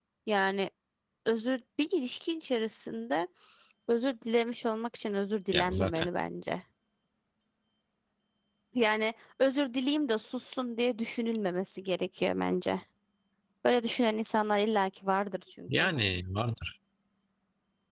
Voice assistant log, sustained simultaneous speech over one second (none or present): none